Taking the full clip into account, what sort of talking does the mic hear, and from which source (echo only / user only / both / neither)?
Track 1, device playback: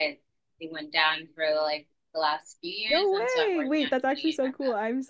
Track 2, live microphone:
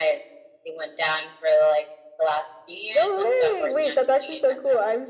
echo only